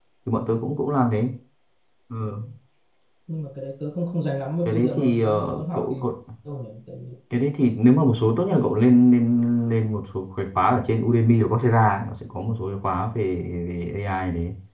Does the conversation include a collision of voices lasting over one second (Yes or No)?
Yes